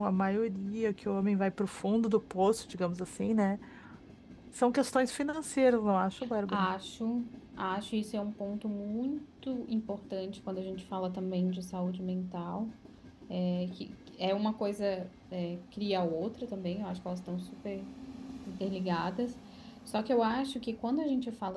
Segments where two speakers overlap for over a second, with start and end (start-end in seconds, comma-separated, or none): none